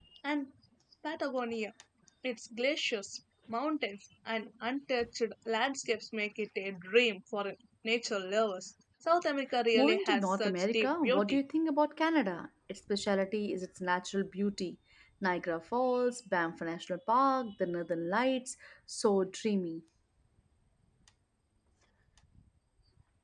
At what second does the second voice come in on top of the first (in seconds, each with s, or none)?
9.7 s